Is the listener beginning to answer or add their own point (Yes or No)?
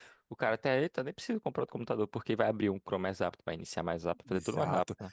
Yes